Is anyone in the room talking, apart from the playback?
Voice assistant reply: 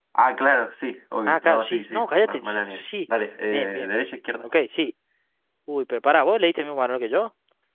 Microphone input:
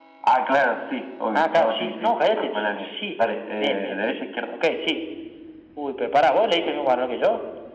No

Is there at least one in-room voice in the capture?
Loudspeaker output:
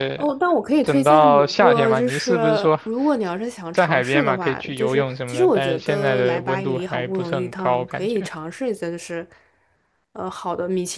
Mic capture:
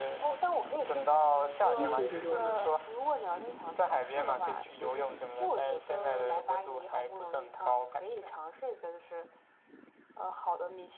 Yes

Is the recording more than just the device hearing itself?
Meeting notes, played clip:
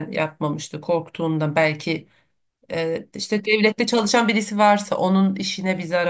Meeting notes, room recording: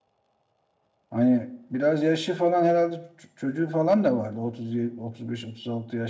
Yes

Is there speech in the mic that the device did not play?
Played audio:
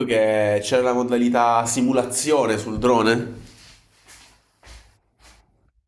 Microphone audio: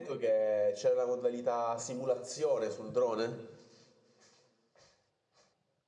No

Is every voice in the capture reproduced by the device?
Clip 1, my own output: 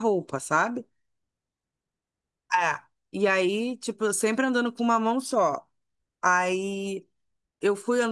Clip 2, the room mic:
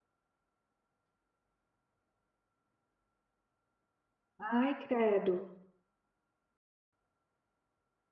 No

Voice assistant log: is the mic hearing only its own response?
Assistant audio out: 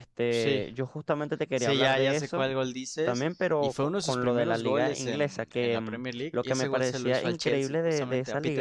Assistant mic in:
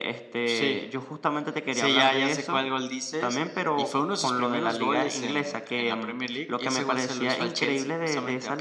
Yes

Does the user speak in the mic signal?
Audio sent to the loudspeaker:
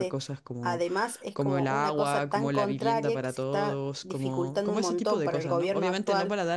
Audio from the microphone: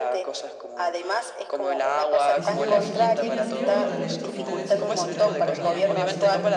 Yes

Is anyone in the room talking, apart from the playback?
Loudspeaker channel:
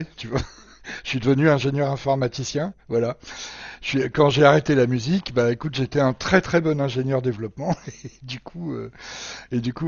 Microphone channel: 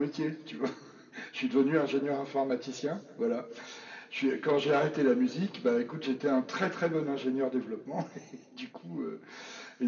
No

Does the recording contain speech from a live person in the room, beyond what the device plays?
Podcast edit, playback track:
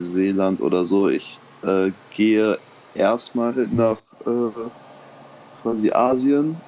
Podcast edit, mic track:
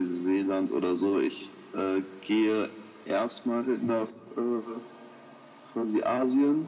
No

